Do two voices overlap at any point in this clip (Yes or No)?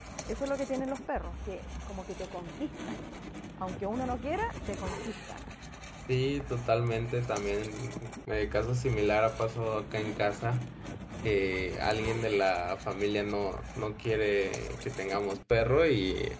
No